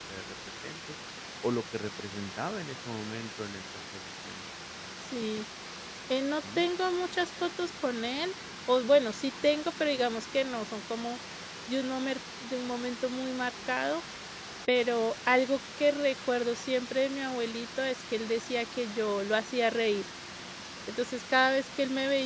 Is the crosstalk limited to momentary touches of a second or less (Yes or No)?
Yes